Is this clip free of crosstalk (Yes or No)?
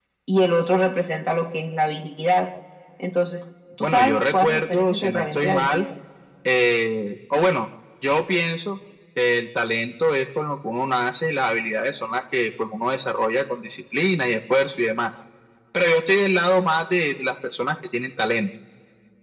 No